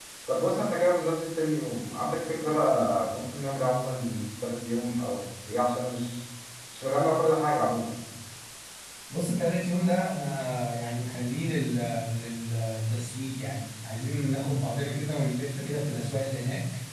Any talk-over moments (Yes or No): No